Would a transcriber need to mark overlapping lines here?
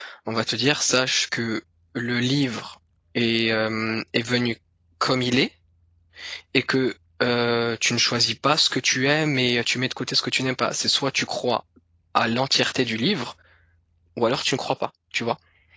No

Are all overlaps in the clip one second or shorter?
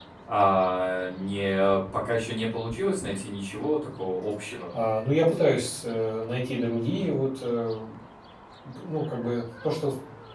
Yes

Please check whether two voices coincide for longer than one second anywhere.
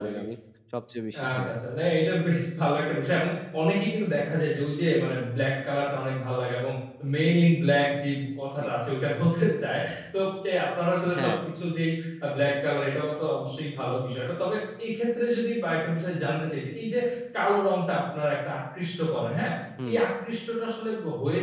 No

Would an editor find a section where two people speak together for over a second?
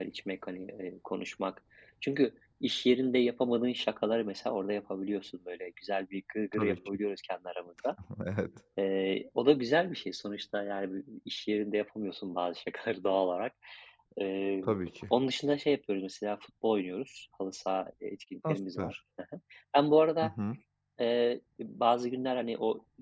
No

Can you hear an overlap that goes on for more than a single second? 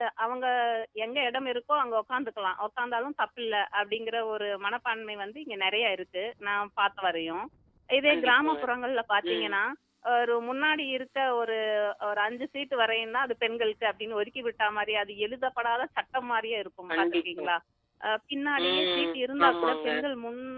Yes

